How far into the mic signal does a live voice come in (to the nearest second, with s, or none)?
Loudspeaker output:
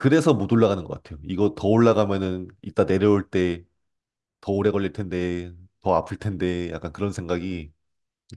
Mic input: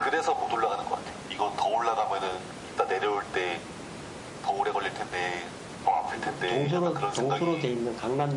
6 s